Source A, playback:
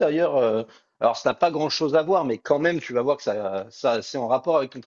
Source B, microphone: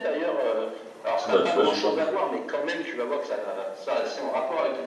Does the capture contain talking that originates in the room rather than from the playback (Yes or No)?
Yes